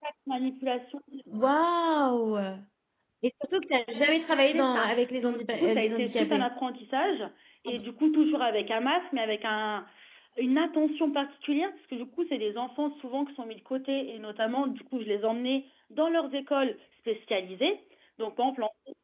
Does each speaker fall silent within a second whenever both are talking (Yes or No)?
No